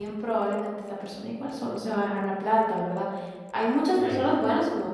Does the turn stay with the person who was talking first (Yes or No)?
Yes